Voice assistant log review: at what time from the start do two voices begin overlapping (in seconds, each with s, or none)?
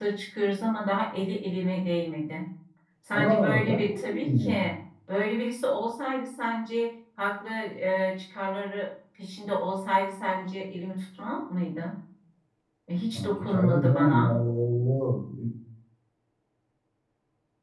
3.1 s